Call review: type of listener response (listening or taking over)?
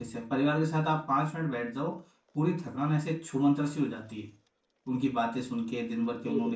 listening